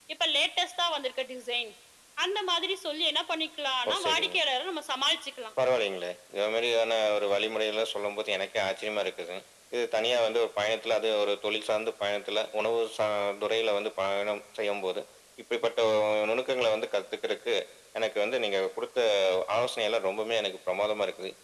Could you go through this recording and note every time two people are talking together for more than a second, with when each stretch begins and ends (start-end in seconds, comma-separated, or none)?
none